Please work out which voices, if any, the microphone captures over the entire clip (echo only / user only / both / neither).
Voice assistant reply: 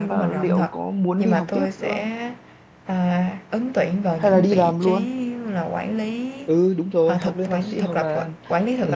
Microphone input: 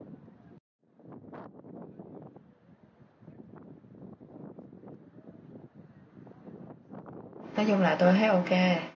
user only